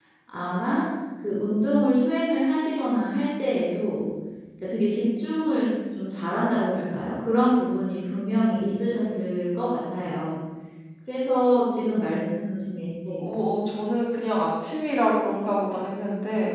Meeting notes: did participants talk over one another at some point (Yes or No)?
No